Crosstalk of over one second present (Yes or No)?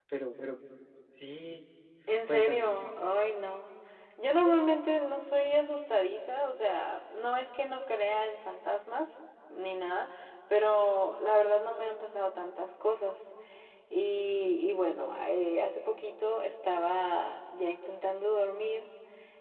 No